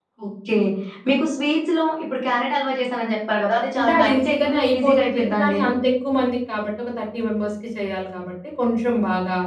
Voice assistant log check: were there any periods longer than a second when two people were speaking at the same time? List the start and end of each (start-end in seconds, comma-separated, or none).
3.8-5.6